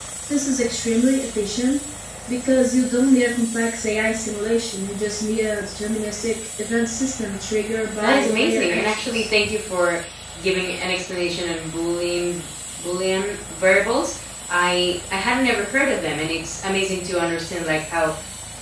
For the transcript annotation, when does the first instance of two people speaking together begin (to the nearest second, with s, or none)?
8 s